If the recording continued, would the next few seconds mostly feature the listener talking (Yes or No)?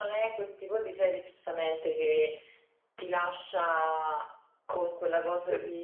No